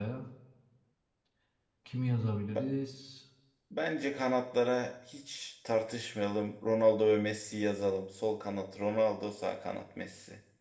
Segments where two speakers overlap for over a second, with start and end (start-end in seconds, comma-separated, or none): none